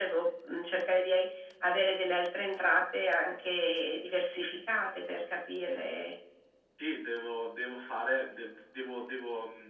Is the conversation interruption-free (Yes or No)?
Yes